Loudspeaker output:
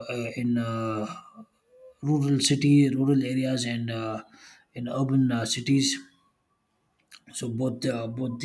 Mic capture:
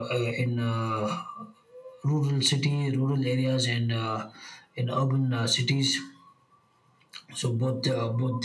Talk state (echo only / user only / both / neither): echo only